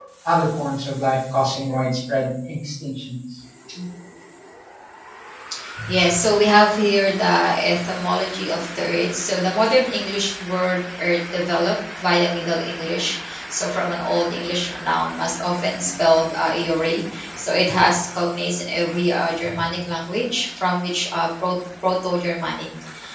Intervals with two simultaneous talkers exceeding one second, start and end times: none

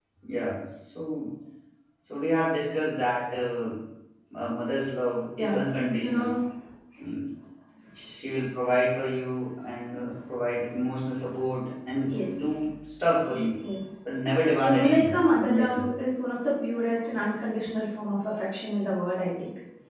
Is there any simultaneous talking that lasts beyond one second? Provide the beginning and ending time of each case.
14.6-15.9

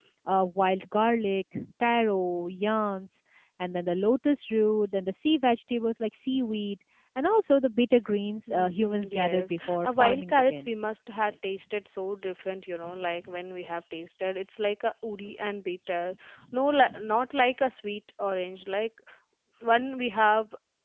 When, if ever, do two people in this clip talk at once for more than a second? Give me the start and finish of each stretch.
8.5-10.7

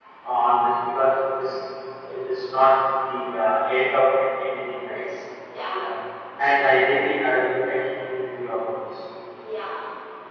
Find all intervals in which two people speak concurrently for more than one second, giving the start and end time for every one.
none

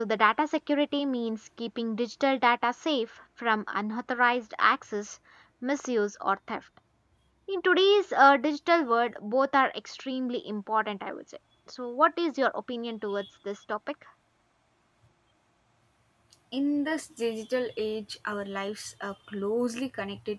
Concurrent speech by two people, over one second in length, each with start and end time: none

